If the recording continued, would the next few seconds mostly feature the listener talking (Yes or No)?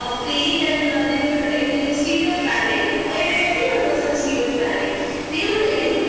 No